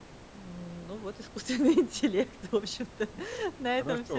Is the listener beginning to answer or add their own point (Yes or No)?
Yes